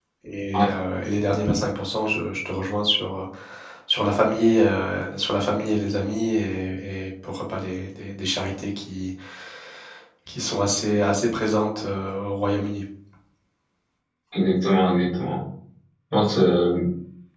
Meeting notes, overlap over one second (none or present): none